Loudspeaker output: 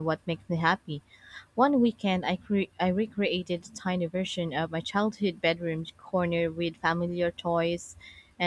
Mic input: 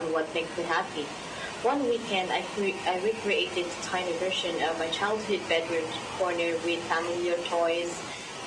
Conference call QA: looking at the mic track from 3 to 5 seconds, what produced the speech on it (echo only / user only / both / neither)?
echo only